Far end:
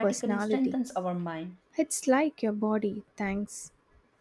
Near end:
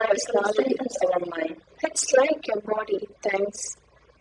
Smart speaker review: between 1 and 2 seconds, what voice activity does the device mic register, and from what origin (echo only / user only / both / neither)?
echo only